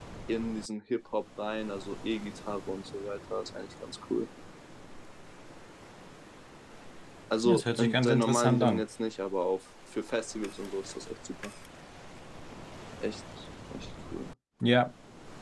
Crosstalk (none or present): present